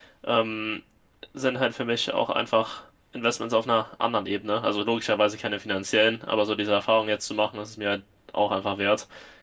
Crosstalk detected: No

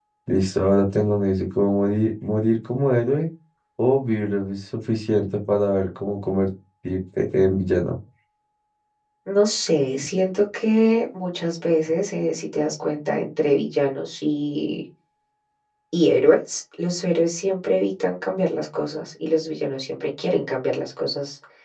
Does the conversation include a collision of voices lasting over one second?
No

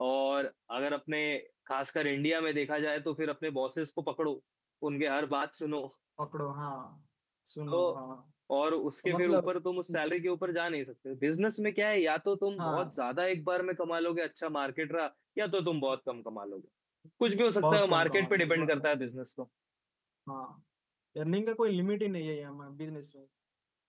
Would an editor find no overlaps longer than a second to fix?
No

